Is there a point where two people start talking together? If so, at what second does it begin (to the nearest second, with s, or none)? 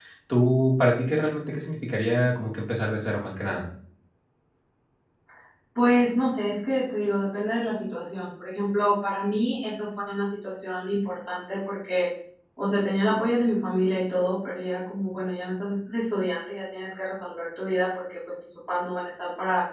none